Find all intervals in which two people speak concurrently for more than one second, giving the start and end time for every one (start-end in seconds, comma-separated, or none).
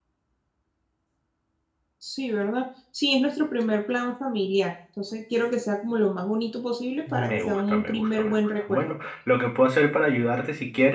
7.1-8.9